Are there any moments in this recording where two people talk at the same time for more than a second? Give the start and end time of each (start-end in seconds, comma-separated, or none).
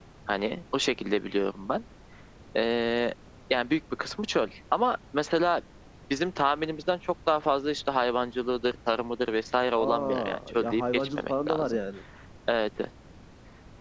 9.8-11.8